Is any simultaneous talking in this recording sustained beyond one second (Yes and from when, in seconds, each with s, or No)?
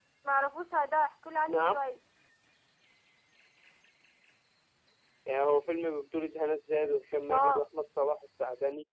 No